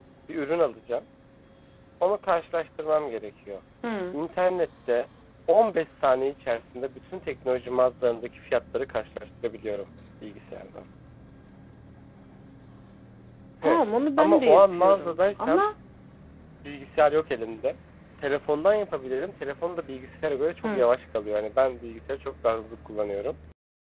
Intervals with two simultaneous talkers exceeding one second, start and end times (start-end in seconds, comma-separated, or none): 14.2-15.6